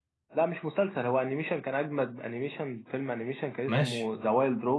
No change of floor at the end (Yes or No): Yes